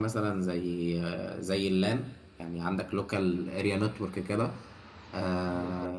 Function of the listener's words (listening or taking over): listening